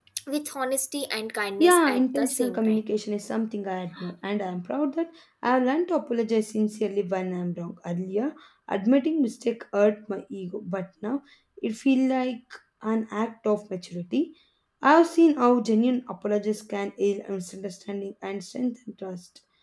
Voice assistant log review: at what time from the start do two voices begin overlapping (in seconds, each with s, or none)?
1.6 s